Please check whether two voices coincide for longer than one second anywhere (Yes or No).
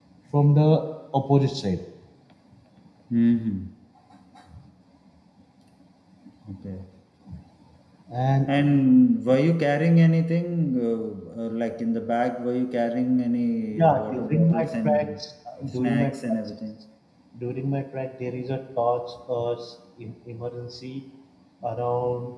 Yes